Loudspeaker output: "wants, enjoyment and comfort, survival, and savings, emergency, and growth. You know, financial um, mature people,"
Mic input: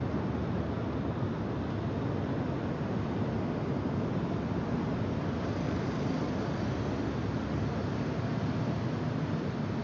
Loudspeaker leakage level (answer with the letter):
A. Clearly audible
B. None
B